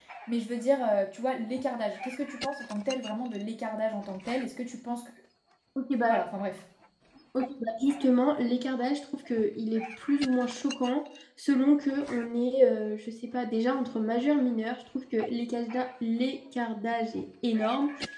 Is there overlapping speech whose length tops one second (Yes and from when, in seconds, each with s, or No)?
No